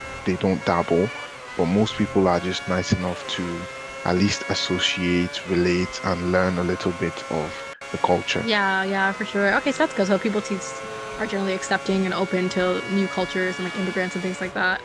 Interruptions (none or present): none